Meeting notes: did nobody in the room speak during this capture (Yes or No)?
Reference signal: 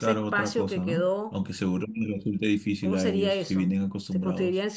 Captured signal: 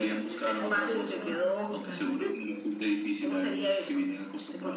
No